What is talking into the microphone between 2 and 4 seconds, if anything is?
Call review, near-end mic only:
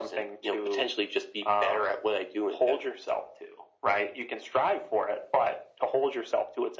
echo only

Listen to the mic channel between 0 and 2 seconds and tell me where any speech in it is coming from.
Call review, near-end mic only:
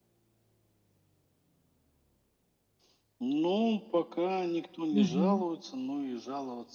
neither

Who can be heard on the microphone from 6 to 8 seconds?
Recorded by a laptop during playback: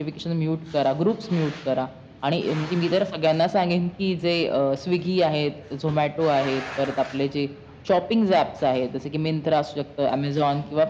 echo only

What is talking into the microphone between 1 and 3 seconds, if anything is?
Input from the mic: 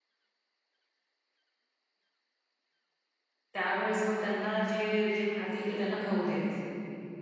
neither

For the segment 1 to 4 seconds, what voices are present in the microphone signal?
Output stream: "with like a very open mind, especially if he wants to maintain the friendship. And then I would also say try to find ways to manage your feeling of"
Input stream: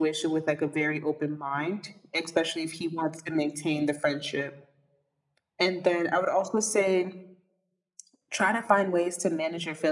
echo only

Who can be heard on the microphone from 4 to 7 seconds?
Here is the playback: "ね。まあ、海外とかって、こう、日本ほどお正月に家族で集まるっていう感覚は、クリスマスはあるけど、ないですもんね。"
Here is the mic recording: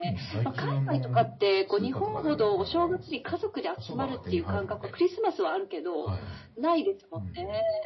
both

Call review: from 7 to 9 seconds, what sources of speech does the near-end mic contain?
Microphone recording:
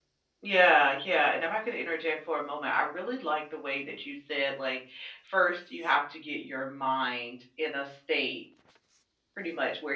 user only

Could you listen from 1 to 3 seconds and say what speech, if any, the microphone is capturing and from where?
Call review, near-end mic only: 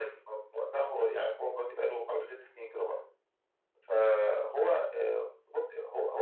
echo only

